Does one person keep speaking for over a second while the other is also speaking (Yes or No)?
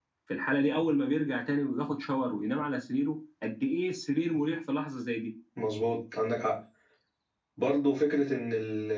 No